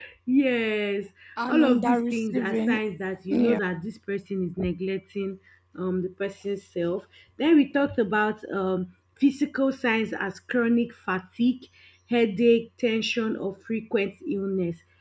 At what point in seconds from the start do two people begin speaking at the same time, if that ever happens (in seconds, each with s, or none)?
1.5 s